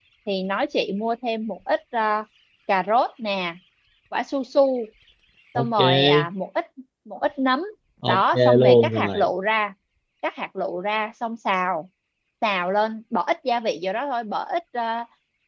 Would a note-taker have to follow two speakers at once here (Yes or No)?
Yes